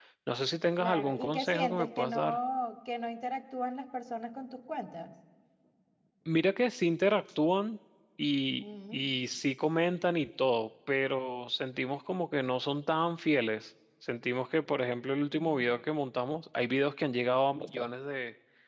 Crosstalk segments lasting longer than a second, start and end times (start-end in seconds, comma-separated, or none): 0.8-2.4